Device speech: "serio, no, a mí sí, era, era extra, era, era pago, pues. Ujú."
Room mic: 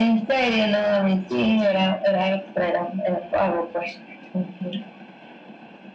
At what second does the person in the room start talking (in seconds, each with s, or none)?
none